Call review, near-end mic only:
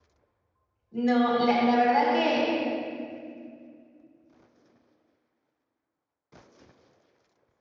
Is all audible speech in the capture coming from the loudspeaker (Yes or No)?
No